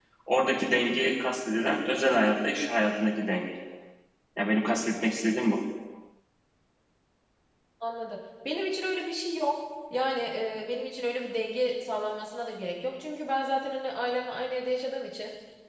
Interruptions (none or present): none